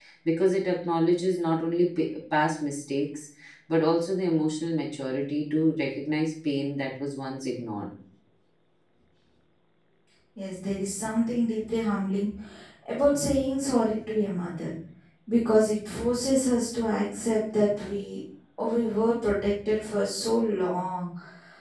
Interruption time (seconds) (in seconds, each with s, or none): none